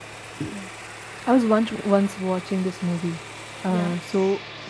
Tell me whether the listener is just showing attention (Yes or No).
Yes